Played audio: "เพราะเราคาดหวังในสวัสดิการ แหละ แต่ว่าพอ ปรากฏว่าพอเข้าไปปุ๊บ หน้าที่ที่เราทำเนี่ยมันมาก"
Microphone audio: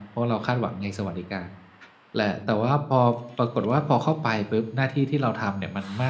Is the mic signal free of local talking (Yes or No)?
Yes